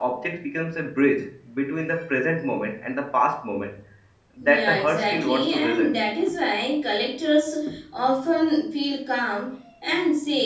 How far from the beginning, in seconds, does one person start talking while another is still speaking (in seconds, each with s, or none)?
4.4 s